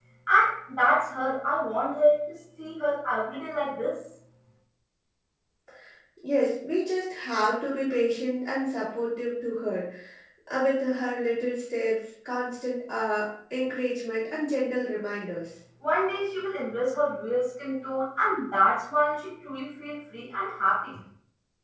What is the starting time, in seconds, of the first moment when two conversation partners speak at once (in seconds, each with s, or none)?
none